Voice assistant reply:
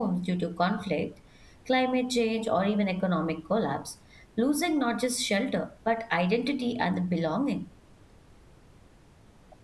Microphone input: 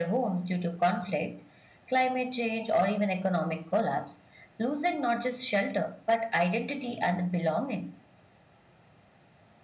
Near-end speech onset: none

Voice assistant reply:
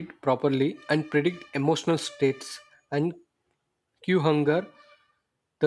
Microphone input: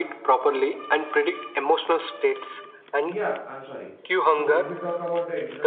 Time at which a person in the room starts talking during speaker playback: 3.0 s

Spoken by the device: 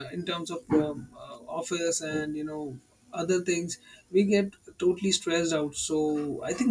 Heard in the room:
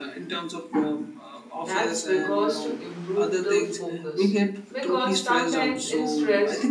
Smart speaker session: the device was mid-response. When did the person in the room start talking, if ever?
1.5 s

